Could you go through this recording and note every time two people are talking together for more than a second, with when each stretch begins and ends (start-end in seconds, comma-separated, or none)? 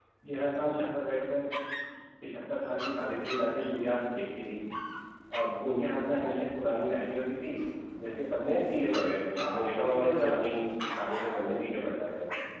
9.4-10.6